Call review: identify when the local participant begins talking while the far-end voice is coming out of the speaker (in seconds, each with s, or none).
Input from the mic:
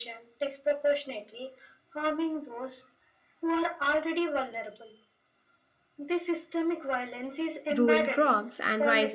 7.8 s